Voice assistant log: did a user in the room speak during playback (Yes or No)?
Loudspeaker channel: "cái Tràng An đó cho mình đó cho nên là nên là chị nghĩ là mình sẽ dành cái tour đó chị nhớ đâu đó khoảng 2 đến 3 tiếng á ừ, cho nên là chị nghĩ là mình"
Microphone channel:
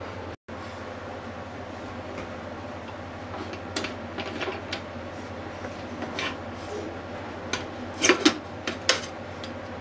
No